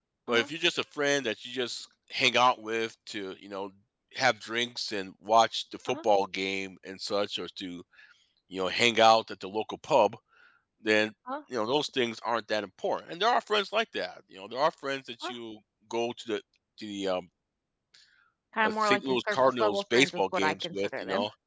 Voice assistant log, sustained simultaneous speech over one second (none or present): present